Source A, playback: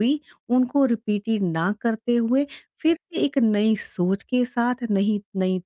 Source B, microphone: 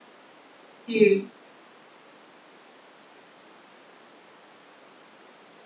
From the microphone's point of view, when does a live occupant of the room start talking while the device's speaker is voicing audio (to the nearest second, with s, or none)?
1 s